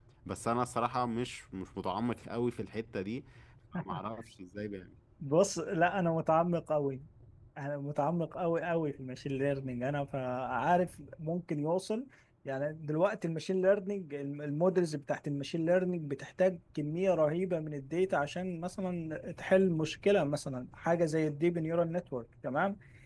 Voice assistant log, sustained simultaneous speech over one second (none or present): none